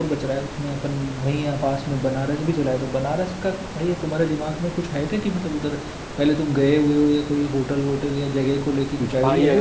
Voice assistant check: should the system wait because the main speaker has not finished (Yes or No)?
No